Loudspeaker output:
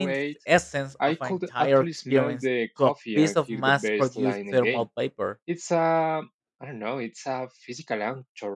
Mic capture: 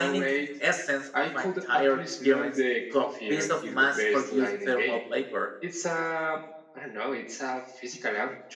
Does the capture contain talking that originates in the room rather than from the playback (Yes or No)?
No